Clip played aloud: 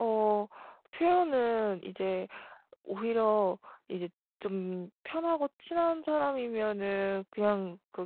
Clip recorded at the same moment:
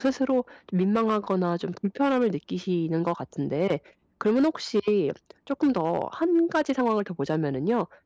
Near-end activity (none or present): present